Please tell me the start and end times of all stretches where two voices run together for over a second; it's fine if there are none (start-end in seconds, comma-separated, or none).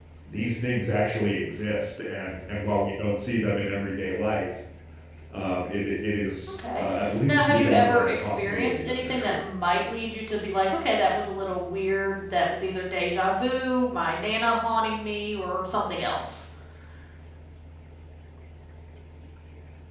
7.3-9.4